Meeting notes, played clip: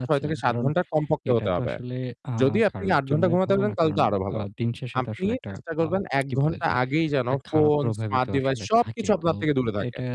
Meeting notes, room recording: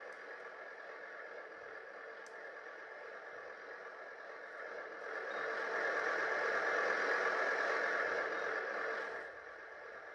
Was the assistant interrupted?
No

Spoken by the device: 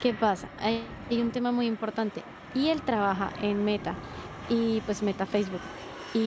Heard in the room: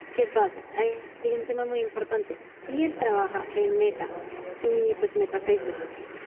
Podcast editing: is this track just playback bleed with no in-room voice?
No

